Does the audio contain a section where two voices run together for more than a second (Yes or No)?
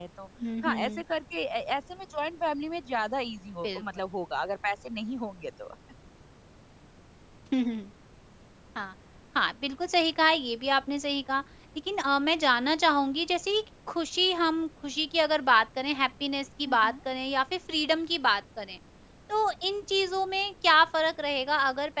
No